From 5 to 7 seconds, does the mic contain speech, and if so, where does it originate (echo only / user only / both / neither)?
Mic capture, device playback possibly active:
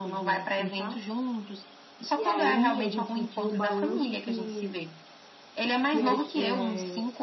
both